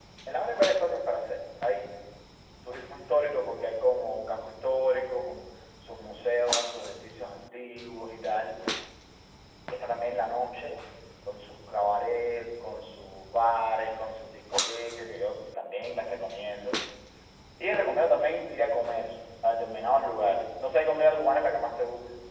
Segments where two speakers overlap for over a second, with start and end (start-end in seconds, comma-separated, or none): none